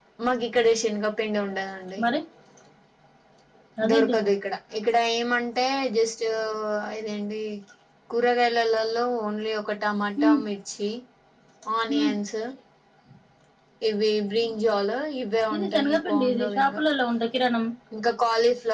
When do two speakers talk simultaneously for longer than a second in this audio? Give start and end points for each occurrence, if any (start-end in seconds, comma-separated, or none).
15.5-16.8